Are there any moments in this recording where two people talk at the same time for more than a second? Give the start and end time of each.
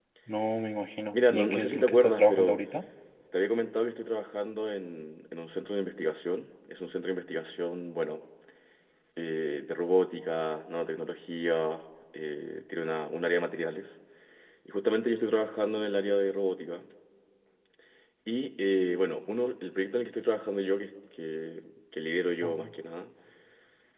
1.1-2.6

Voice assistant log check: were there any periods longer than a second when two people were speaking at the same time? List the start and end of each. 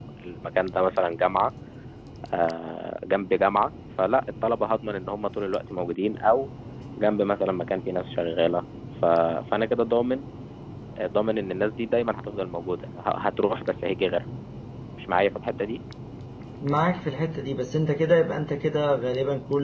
none

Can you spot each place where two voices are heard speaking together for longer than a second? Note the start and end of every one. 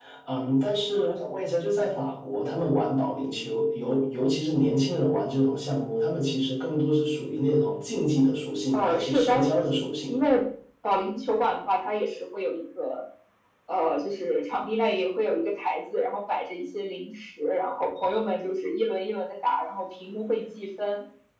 8.7-10.2

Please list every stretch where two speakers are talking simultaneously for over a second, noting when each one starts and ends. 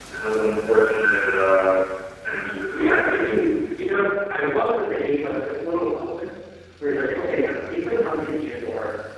none

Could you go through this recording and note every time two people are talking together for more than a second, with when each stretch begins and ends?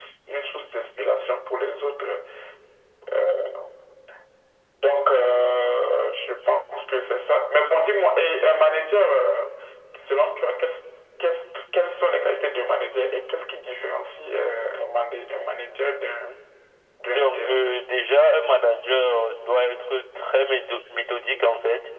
none

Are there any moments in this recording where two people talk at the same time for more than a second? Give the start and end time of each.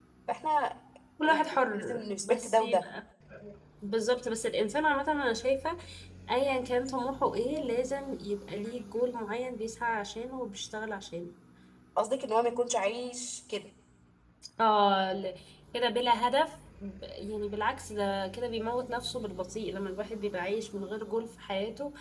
1.2-2.8

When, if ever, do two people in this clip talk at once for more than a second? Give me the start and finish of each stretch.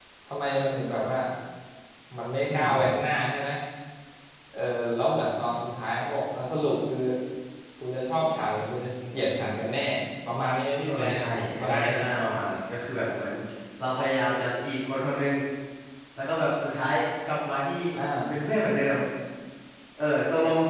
none

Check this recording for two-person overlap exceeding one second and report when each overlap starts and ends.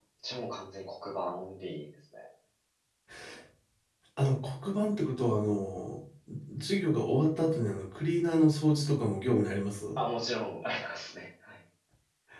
none

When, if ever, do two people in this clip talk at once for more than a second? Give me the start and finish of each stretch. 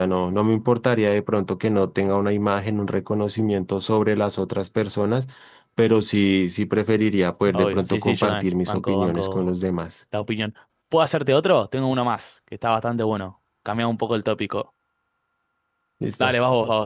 7.5-9.5

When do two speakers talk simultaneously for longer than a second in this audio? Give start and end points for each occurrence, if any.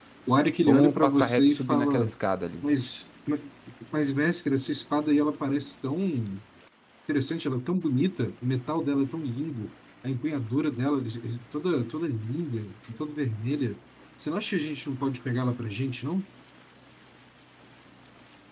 0.7-2.1

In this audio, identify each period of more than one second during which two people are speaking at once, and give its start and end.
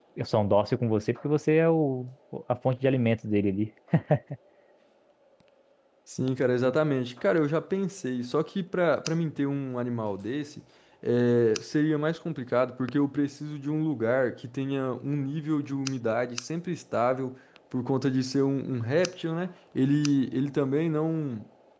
none

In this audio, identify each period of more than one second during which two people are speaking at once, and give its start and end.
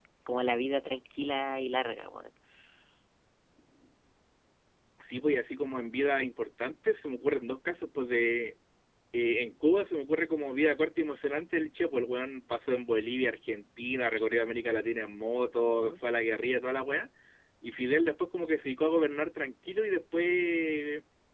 none

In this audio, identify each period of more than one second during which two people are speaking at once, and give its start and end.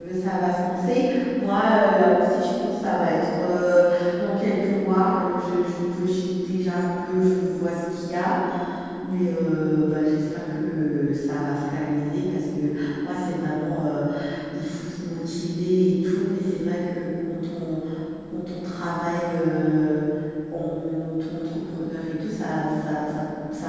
none

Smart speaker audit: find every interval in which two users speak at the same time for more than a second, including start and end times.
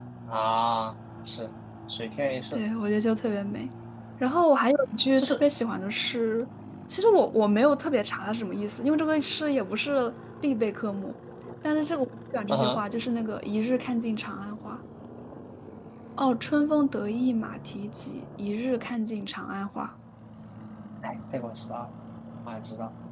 none

